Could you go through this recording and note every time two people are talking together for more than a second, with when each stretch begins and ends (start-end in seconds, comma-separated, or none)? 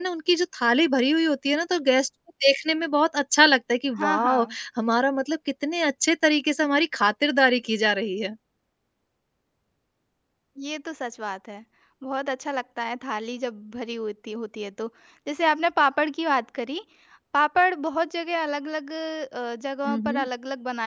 none